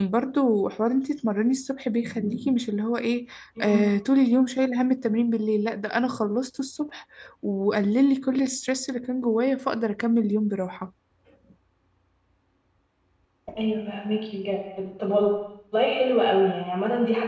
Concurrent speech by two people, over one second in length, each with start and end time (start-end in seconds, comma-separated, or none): none